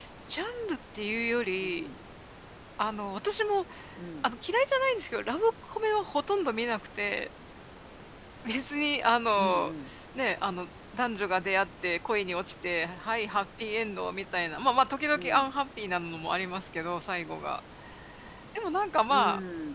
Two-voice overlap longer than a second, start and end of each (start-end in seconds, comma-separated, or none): none